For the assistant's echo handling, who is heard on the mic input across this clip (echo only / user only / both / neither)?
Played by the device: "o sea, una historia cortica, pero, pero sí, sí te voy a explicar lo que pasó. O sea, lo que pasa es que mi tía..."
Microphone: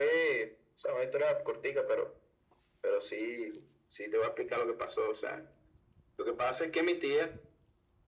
echo only